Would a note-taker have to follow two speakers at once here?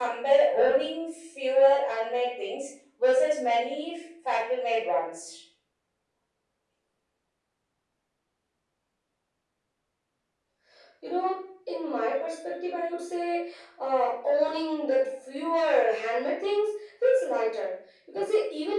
No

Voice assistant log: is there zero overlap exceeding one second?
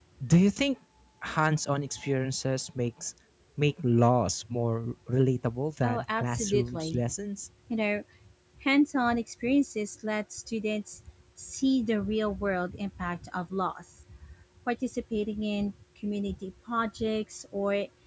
No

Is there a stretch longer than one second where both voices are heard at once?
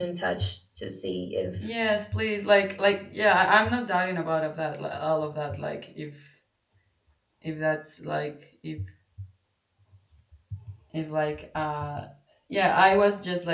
No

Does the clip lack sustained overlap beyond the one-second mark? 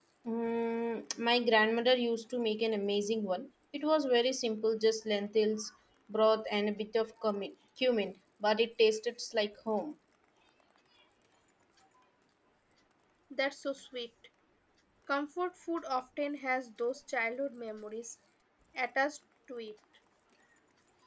Yes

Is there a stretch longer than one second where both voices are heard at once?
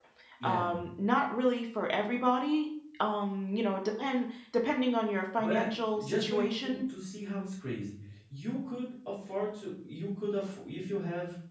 Yes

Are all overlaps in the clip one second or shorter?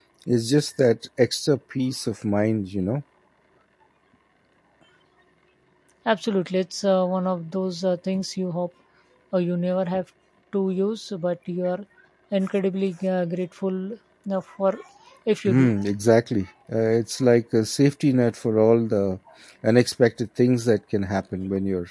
Yes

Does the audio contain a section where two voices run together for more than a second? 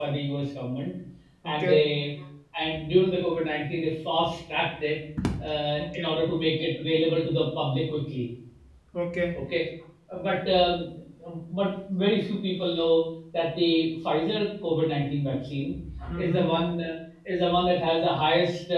No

